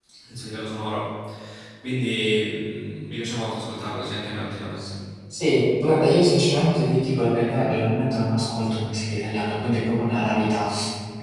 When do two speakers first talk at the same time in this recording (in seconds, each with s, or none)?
none